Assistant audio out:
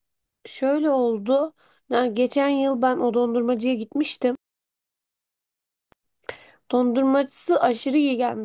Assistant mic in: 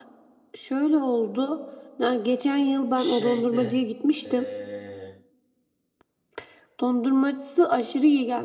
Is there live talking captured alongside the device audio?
Yes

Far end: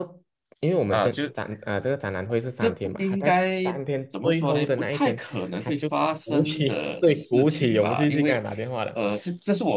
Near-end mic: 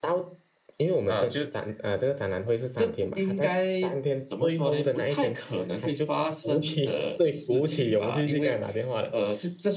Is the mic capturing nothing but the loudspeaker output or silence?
Yes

